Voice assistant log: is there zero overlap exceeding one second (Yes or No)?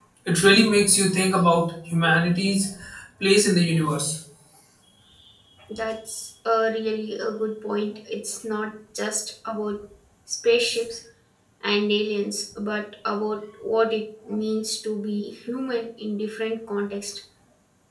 Yes